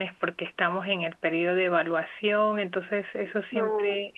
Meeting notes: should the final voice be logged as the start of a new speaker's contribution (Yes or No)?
No